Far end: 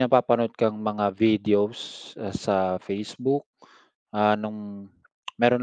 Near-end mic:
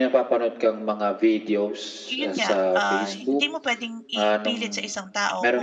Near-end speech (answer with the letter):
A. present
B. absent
A